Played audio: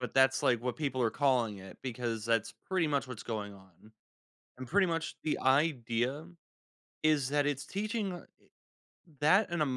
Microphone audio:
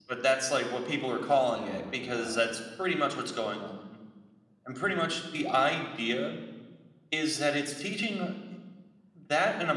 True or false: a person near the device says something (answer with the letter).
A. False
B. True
B